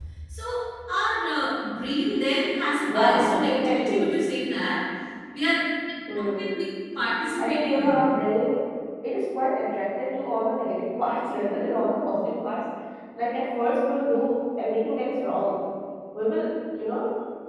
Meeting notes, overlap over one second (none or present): present